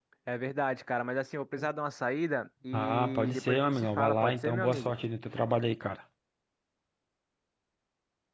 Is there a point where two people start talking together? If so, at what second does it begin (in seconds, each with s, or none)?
2.7 s